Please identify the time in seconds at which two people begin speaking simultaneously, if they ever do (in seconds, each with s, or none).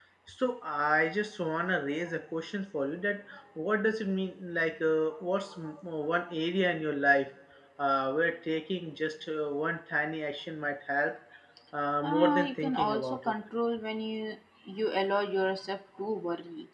12.0 s